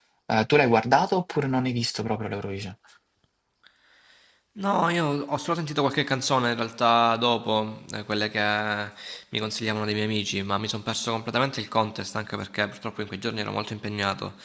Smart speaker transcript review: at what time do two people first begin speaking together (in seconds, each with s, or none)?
none